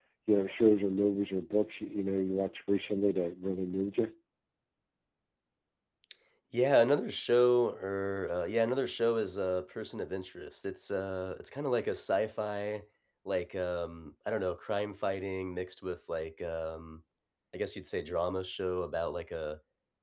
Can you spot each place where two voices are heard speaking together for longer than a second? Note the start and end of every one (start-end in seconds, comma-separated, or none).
none